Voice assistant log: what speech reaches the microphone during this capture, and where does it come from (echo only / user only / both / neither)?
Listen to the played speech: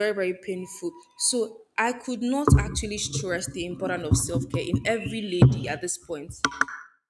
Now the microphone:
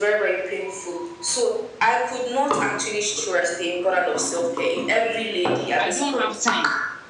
both